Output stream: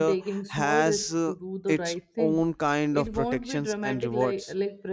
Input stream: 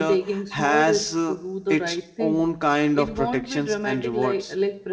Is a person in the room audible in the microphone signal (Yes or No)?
No